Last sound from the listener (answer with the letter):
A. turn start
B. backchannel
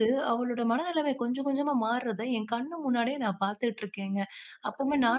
B